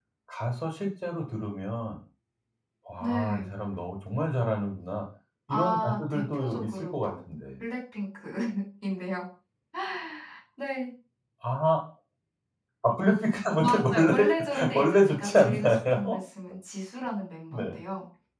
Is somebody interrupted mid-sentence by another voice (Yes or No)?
Yes